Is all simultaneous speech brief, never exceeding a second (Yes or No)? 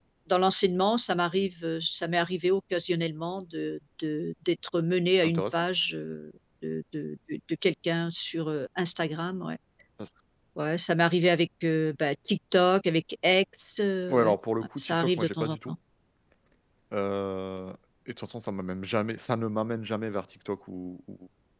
No